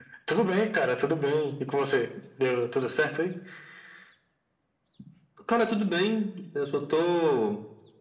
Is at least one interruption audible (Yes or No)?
No